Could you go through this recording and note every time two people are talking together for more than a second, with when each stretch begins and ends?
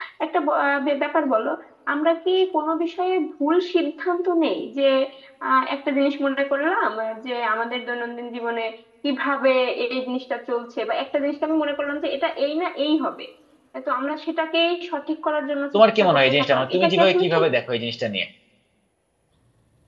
15.7-17.5

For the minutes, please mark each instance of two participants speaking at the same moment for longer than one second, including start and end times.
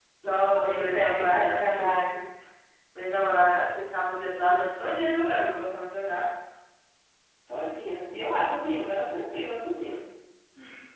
0.5-1.9

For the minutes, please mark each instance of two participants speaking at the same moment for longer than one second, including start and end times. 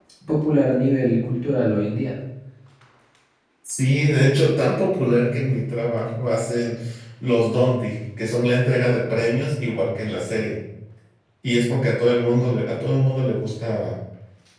none

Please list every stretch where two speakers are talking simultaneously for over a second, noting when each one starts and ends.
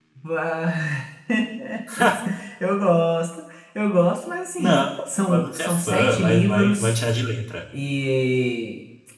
5.3-7.0

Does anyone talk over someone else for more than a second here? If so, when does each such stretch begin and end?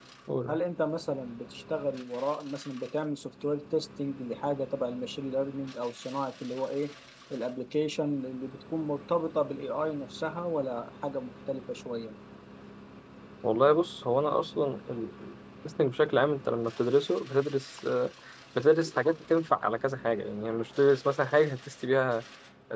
none

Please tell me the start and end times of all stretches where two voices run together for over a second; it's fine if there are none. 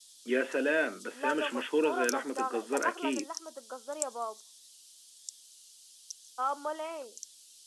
1.1-3.2

